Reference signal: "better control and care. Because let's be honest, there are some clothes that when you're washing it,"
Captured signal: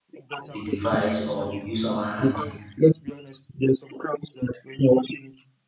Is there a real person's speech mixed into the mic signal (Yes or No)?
Yes